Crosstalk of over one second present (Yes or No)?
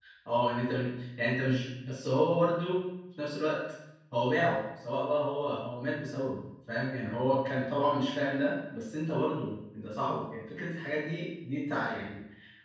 No